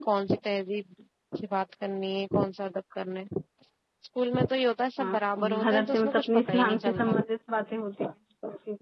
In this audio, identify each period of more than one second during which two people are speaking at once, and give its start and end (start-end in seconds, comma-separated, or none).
5.6-7.1